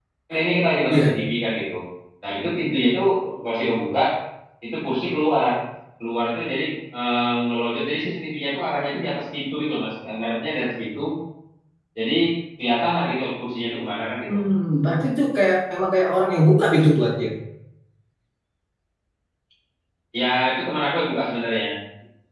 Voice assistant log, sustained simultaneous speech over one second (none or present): none